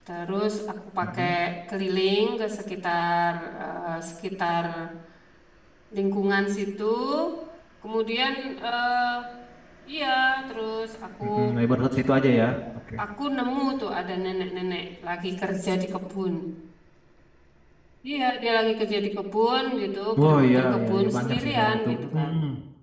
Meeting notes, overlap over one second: present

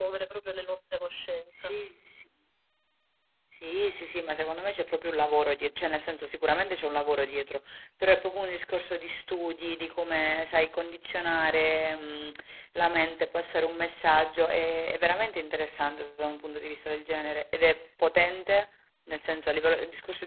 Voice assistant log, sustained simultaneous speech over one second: none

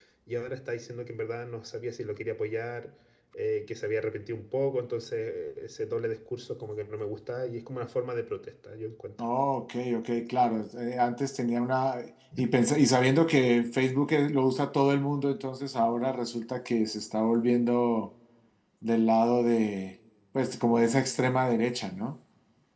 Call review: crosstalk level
none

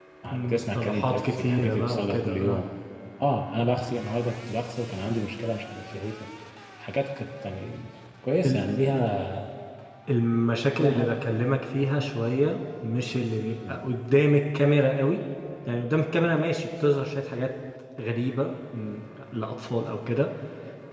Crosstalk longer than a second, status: present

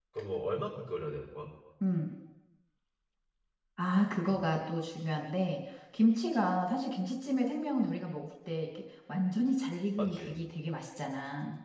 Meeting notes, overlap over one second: none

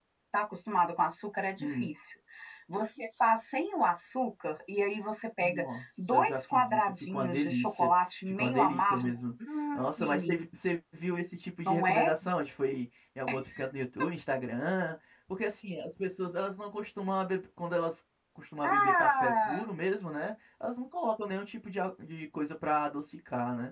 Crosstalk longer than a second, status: present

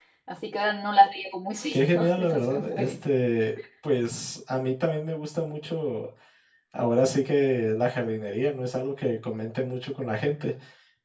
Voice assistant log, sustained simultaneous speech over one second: present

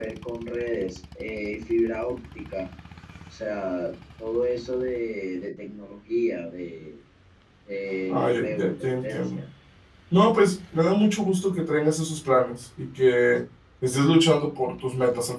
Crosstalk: present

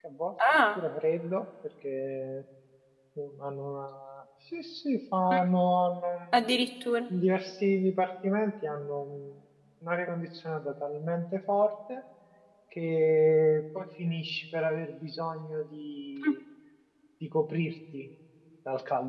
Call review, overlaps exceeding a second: none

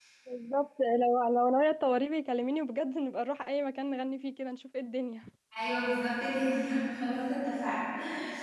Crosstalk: none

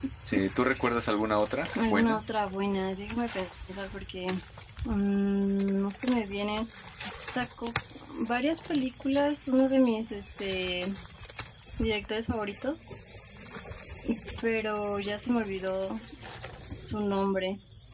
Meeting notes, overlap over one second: none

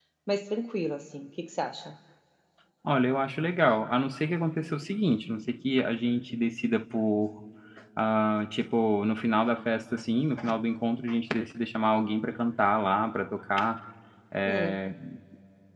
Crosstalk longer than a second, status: none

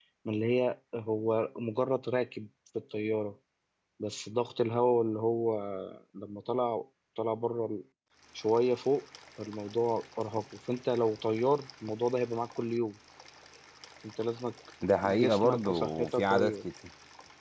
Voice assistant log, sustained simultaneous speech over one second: present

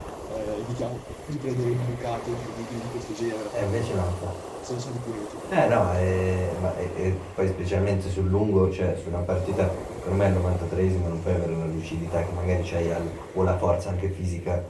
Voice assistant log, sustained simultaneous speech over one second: none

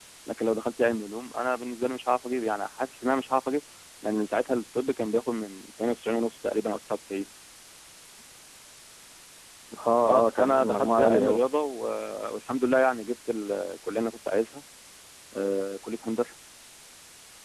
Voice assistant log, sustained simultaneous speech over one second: present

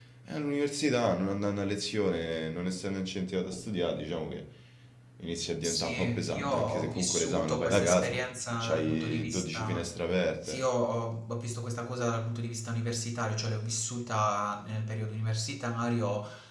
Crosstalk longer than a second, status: present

